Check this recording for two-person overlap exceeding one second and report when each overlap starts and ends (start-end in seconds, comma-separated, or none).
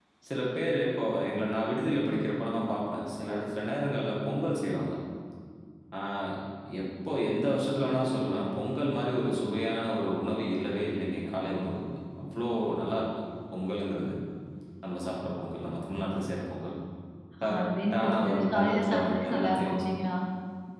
17.4-19.8